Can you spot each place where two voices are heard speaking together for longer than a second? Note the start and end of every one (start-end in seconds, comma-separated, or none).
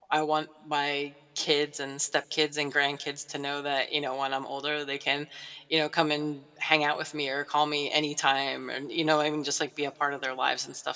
none